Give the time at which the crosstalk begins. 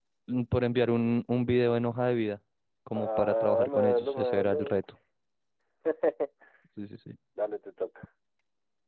3 s

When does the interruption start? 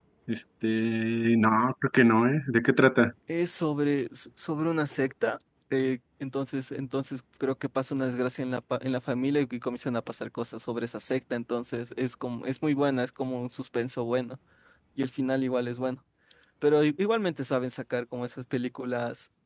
none

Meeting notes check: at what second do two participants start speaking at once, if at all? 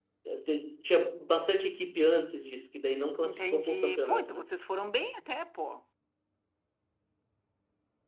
3 s

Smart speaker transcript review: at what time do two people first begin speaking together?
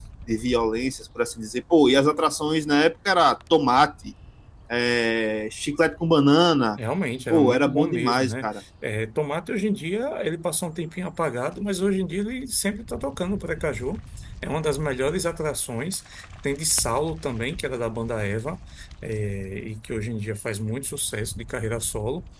7 s

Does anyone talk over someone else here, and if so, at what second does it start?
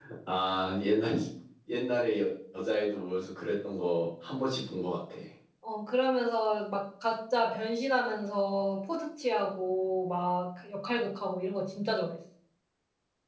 none

